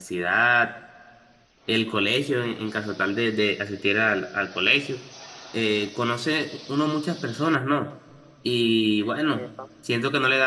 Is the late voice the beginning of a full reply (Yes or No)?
No